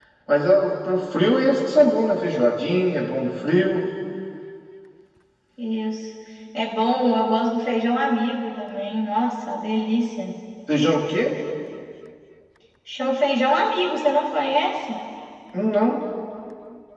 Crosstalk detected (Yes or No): No